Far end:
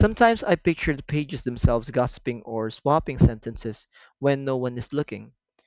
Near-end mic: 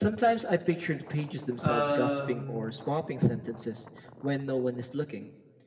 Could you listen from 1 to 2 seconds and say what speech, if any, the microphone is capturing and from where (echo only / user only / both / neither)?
both